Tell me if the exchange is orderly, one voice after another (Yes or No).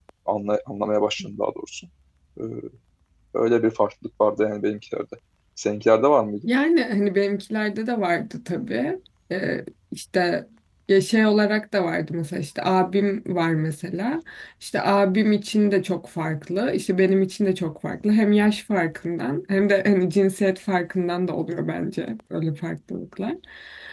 Yes